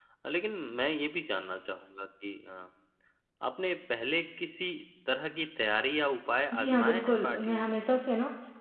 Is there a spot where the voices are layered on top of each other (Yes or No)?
Yes